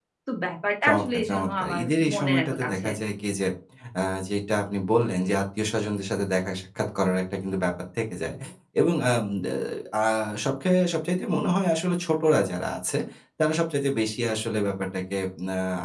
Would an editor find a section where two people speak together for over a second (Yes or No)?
Yes